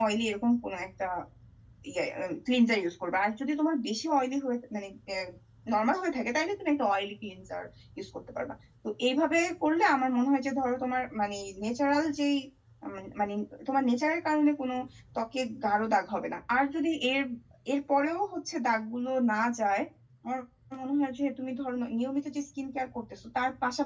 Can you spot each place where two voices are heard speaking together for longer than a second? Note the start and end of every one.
none

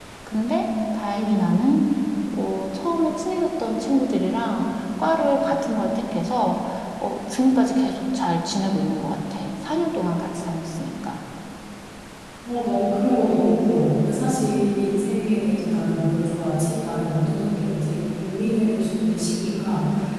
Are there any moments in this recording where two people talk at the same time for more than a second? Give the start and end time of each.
none

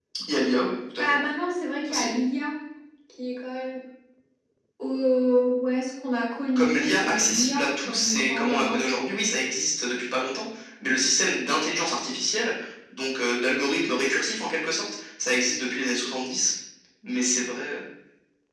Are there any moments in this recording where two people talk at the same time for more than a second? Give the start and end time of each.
6.6-9.1

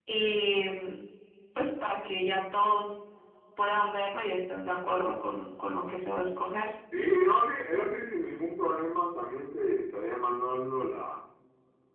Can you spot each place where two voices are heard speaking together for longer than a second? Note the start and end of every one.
none

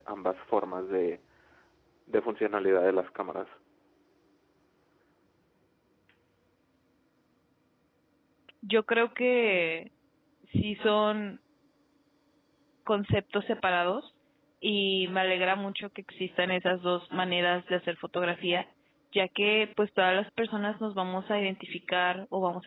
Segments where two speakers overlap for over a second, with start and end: none

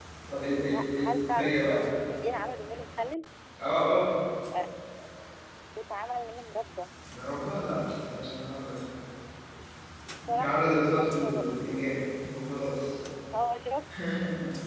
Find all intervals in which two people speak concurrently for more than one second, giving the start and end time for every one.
0.7-1.9, 10.3-11.6

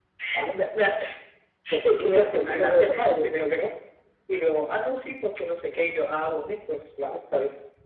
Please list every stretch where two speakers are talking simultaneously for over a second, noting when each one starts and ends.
1.8-3.1

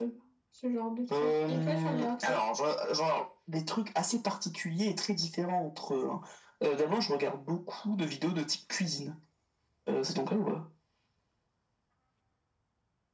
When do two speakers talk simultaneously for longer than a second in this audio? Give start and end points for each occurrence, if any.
1.2-2.4

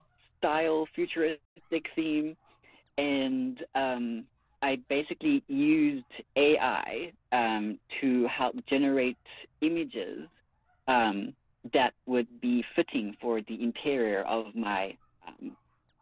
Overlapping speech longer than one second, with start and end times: none

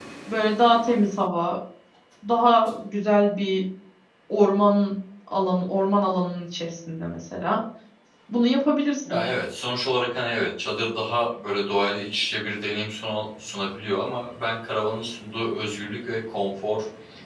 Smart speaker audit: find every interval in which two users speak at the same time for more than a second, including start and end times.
none

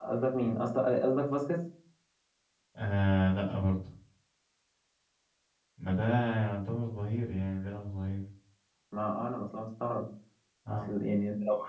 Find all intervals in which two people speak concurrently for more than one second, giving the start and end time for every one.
none

